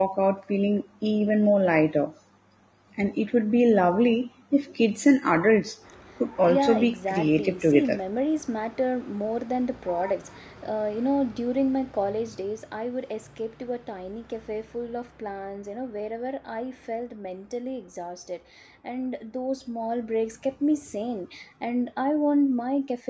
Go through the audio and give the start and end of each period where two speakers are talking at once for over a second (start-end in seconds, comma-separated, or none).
6.4-8.0